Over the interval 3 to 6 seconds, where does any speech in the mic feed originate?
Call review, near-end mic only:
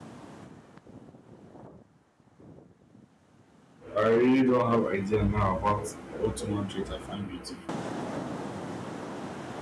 user only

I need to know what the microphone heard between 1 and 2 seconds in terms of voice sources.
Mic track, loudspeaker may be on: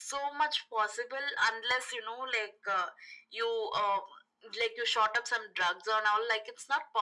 echo only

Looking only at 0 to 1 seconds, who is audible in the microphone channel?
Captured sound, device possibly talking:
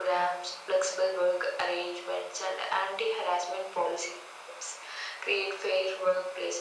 echo only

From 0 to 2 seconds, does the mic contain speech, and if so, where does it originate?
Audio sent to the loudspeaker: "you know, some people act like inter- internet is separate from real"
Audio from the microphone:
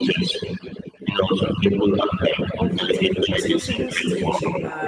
echo only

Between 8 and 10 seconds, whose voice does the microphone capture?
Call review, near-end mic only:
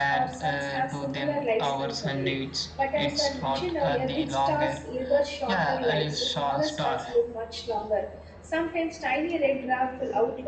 user only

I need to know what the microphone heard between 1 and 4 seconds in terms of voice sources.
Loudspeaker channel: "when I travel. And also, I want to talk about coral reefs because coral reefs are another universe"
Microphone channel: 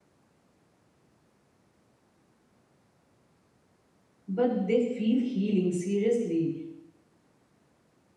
neither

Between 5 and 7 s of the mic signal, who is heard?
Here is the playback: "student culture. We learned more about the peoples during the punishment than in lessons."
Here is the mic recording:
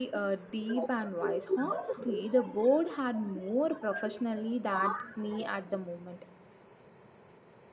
both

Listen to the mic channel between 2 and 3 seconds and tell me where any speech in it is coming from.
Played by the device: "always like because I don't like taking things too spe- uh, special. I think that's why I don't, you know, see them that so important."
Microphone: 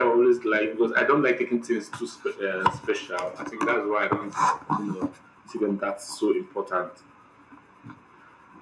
echo only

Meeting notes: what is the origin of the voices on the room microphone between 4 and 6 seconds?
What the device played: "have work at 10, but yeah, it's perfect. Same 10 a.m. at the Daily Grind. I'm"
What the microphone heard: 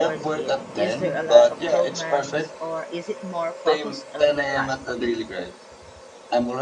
both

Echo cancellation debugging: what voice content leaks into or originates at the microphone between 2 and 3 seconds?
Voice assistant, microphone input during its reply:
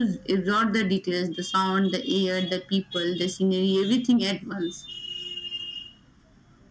echo only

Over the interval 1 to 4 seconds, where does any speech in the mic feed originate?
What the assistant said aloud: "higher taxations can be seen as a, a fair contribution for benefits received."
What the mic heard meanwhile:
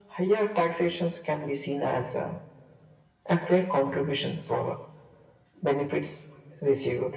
echo only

